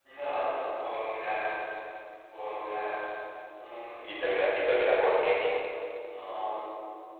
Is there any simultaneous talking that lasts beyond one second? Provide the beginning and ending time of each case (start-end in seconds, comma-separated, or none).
4.0-5.3